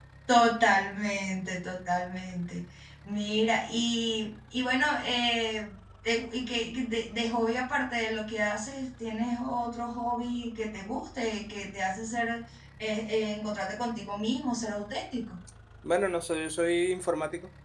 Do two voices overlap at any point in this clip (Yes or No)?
No